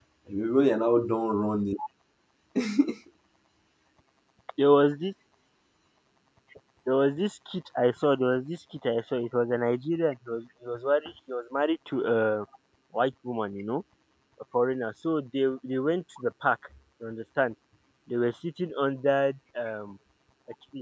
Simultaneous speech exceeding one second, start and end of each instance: none

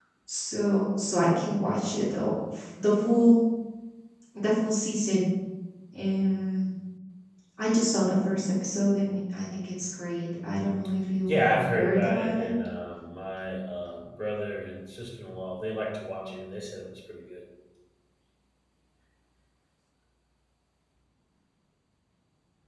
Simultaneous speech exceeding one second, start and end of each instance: 11.3-12.5

